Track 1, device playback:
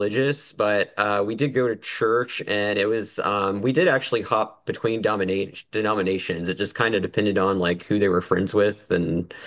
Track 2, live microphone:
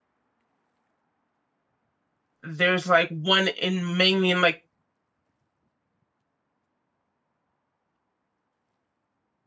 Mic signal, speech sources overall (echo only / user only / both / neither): user only